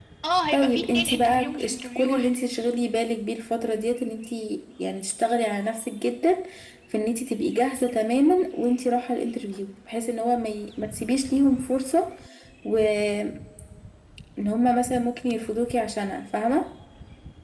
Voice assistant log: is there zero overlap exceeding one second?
No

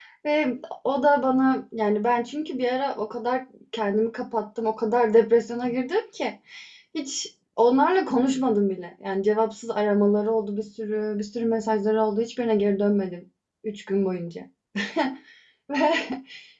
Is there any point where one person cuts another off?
No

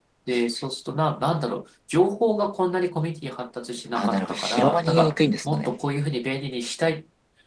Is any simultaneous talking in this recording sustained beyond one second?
Yes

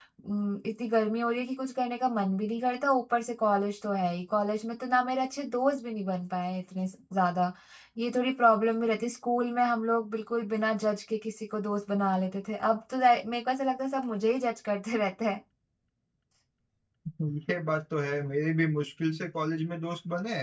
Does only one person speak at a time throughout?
Yes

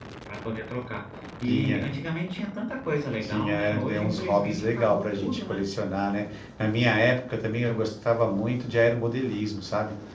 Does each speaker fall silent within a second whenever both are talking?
No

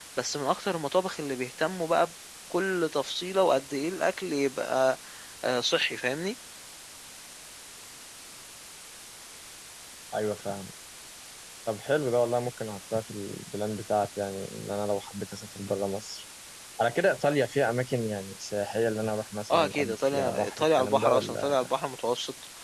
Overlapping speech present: Yes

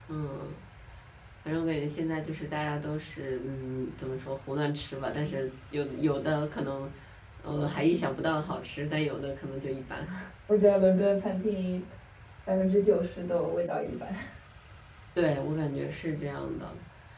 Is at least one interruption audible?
No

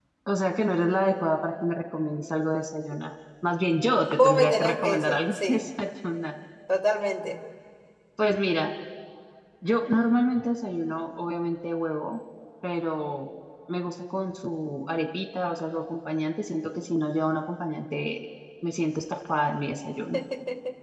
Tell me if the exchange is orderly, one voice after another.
No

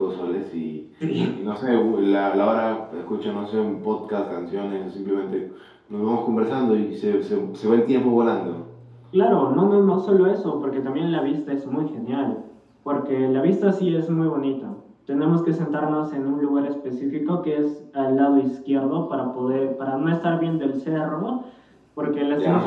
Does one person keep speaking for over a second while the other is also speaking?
No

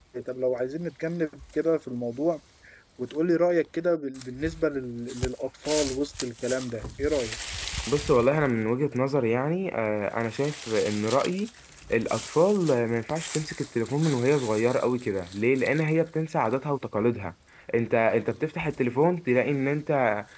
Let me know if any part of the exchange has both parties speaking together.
No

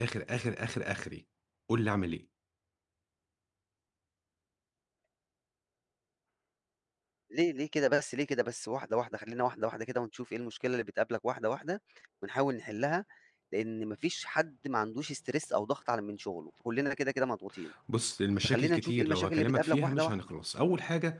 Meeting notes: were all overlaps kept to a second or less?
No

